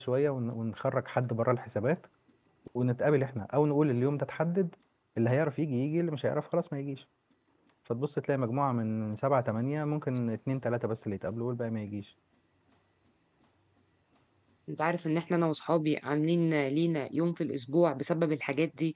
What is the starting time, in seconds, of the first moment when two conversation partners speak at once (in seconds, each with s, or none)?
none